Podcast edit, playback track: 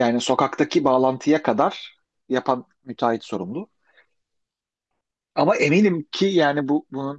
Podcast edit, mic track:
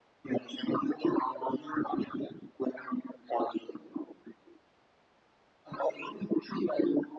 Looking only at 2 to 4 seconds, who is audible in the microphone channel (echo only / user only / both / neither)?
echo only